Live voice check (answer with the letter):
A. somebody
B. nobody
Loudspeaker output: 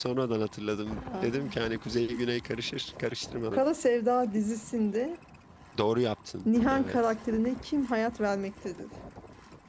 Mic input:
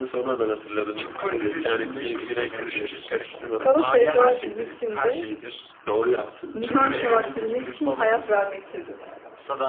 A